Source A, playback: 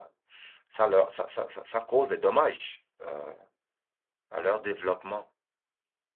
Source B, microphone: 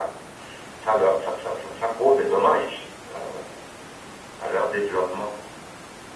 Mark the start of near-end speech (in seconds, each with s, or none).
none